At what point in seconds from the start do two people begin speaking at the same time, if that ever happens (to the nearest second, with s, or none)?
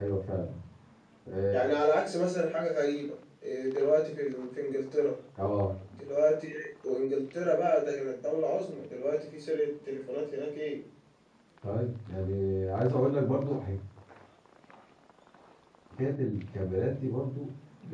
none